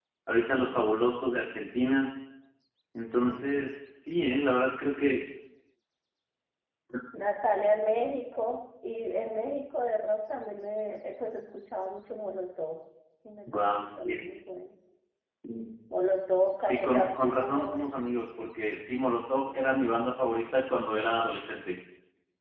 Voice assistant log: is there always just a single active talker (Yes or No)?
No